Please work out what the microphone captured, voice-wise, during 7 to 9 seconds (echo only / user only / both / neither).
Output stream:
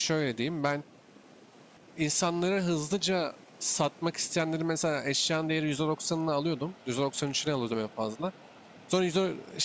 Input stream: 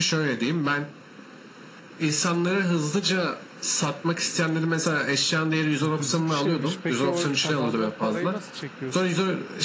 both